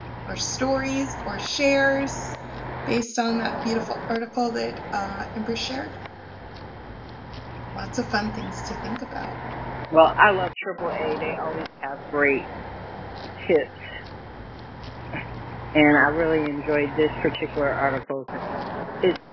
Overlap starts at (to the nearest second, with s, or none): none